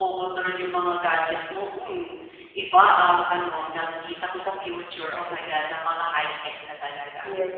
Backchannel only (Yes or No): No